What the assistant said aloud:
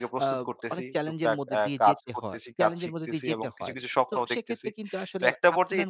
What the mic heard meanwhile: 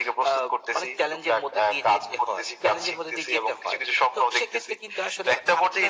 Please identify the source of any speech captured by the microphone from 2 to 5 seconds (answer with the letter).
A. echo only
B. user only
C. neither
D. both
A